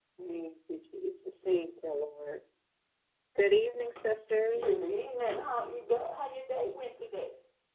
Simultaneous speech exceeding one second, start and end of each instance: none

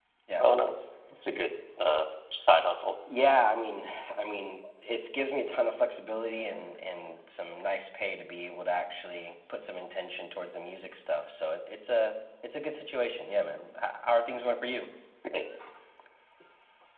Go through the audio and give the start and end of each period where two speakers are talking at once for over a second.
none

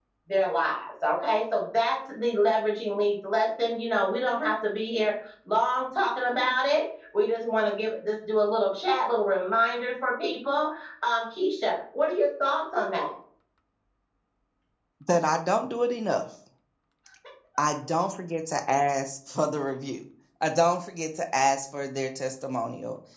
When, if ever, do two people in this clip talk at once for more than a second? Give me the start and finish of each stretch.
none

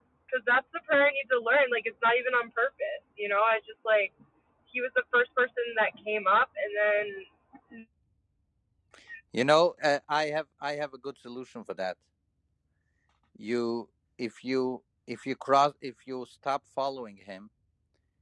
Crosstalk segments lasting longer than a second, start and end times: none

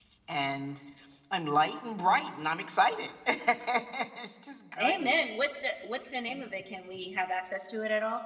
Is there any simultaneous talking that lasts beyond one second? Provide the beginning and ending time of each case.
none

